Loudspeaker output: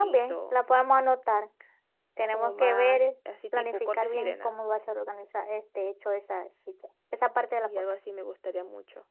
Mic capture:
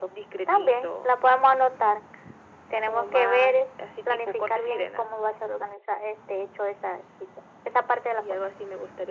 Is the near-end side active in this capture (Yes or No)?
No